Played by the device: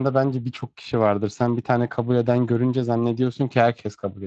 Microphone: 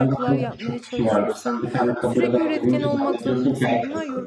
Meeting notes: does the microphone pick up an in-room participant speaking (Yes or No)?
Yes